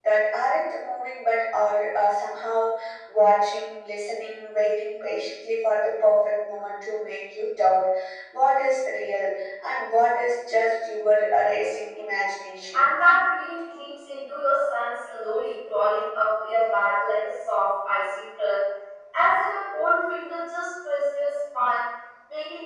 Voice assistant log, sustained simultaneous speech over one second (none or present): none